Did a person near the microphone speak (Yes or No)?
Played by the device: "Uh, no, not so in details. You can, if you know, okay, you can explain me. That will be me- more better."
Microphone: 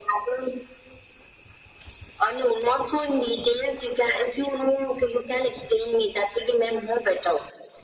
No